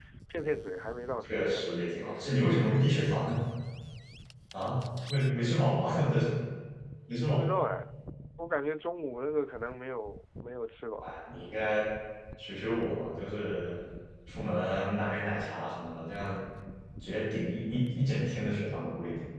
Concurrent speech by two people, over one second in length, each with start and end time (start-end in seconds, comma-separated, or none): none